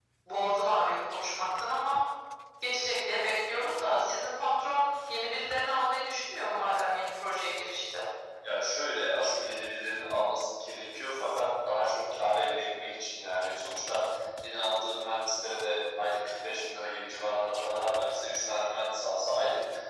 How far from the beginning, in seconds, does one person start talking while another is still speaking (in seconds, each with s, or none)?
none